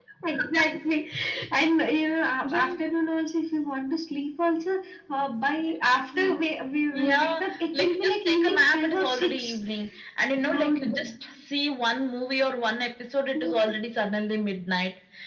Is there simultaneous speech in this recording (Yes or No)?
Yes